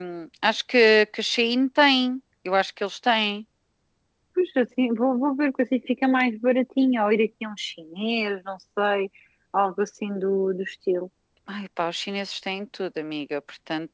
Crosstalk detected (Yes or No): No